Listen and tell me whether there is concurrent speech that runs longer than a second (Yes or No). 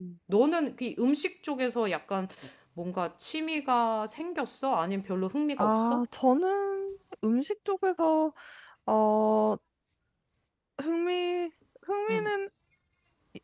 No